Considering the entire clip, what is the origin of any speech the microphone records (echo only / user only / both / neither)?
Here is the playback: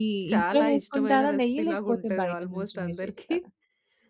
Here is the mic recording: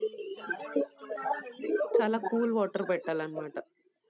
both